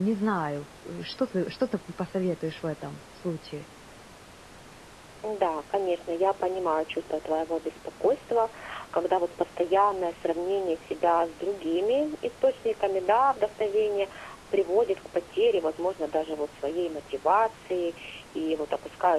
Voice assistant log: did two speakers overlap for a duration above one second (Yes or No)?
No